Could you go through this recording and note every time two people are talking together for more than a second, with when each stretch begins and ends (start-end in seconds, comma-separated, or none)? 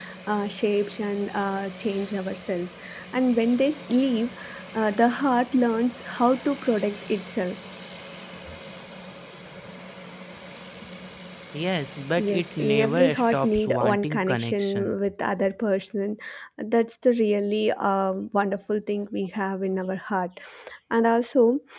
12.2-14.9